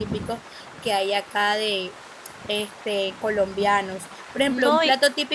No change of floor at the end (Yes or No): Yes